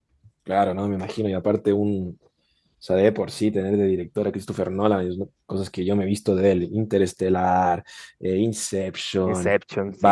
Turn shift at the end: No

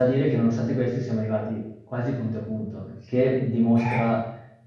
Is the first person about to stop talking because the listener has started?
No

